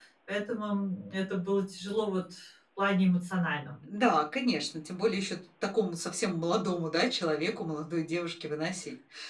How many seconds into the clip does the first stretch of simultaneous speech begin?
none

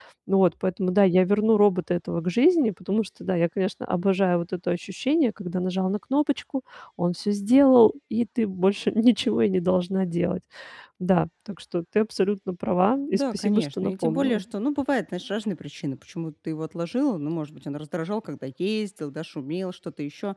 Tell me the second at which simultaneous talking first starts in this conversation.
13 s

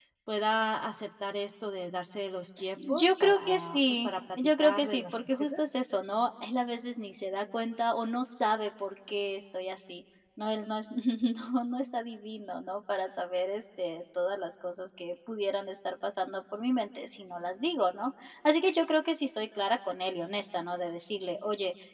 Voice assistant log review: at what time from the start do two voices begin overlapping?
3 s

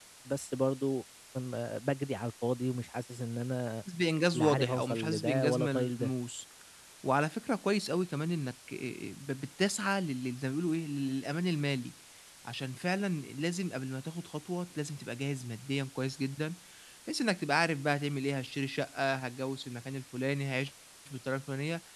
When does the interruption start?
4 s

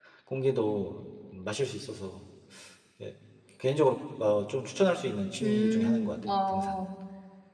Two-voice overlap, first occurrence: 5 s

